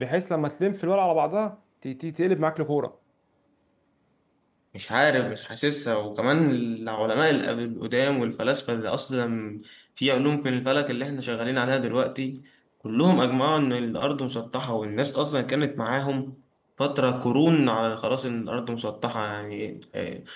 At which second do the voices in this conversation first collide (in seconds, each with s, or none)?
none